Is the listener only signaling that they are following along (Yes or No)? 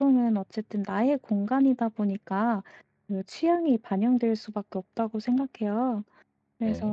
Yes